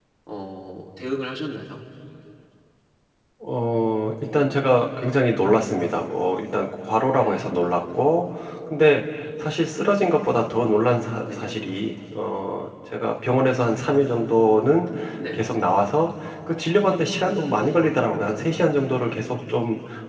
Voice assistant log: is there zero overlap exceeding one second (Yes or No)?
Yes